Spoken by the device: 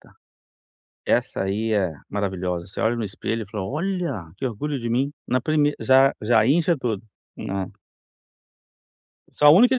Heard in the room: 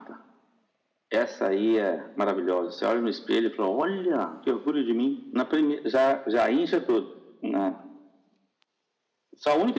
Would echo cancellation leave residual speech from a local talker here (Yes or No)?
No